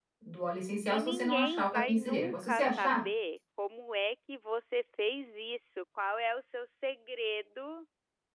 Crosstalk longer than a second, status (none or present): present